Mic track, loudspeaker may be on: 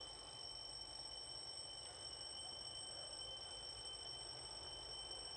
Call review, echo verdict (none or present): none